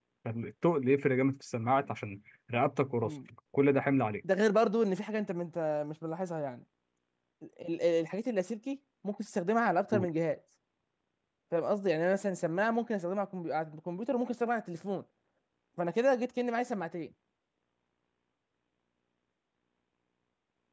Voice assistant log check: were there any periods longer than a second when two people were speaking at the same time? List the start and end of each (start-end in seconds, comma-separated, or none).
none